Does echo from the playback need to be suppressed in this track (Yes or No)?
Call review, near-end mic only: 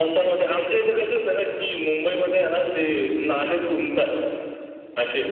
Yes